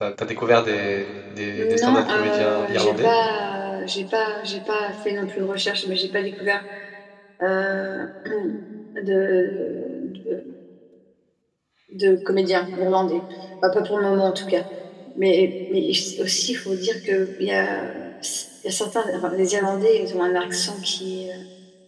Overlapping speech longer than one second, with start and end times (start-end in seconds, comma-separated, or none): 1.6-3.1